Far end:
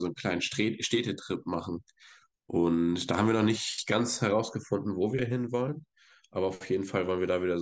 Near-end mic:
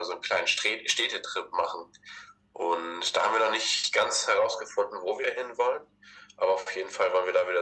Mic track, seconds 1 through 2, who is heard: echo only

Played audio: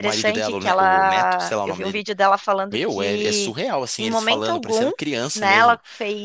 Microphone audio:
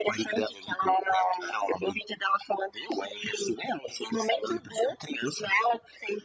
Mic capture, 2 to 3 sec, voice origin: echo only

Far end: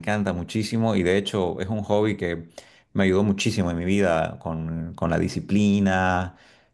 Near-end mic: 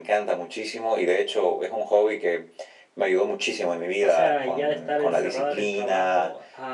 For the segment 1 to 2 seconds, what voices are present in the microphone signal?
echo only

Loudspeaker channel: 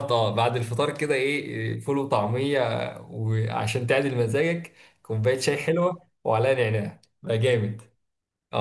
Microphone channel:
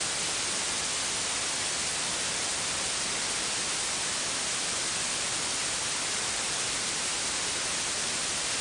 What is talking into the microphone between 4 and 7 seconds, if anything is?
neither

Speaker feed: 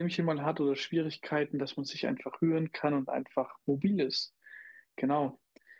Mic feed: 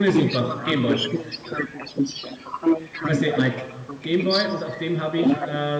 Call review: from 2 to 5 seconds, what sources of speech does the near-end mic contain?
both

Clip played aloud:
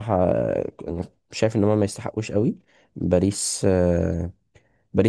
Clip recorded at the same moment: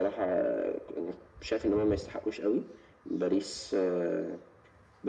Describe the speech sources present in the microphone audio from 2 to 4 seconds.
echo only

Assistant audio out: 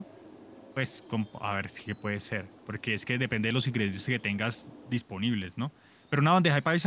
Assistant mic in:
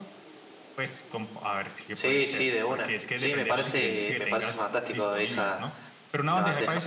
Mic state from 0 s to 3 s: both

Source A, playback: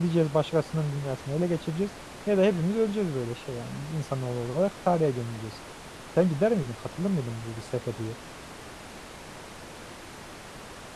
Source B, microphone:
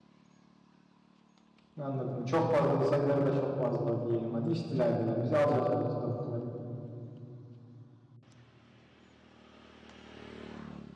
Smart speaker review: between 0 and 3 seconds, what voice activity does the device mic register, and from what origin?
user only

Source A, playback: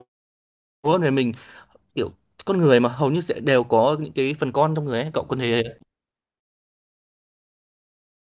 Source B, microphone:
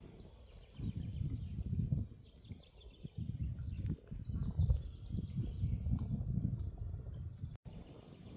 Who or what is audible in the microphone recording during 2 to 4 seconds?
neither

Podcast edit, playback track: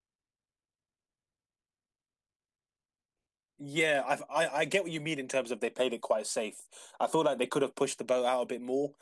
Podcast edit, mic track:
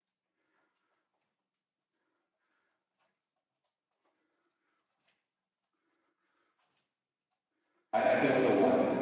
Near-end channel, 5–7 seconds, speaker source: neither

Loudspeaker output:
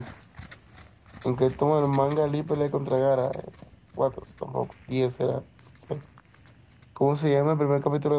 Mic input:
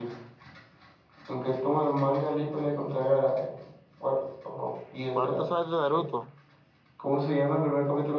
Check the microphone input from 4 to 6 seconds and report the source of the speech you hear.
both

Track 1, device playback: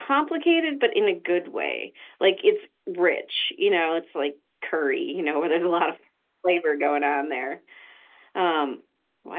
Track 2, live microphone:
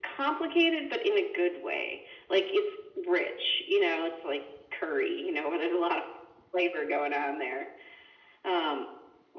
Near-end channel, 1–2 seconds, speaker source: echo only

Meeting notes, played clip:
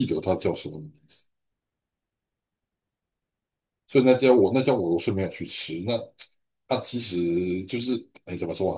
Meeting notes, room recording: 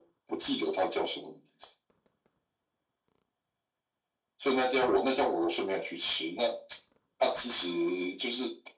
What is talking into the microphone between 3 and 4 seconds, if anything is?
neither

